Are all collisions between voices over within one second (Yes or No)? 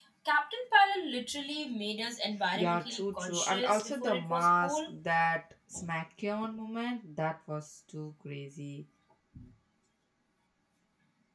No